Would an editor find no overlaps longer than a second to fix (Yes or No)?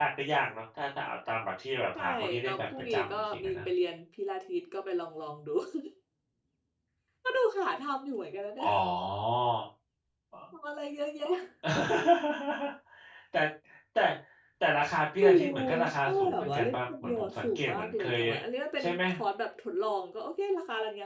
No